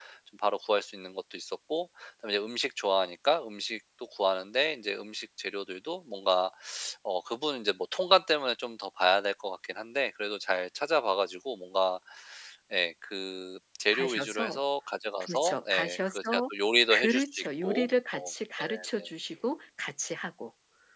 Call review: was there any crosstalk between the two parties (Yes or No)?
Yes